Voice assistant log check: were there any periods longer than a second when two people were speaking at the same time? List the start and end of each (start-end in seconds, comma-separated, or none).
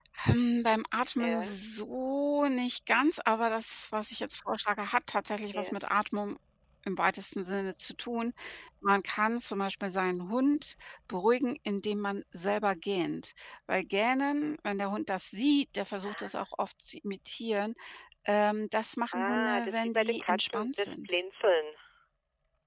19.1-21.2